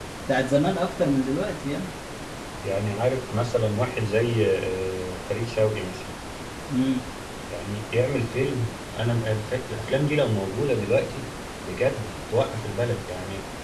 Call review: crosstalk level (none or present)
none